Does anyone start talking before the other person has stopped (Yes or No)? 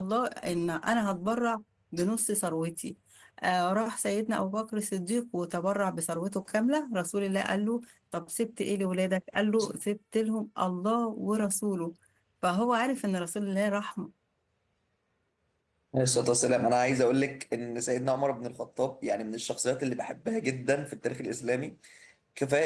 No